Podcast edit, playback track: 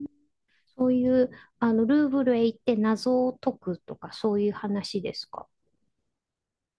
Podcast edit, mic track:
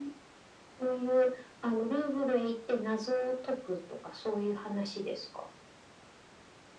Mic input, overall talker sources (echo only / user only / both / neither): echo only